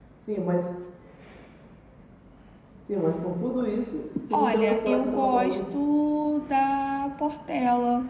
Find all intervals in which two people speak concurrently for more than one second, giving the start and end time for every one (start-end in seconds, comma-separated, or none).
4.3-5.6